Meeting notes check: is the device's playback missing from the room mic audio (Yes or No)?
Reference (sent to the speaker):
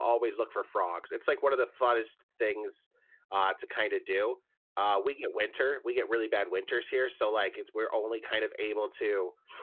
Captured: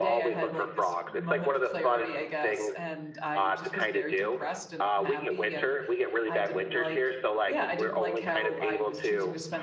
No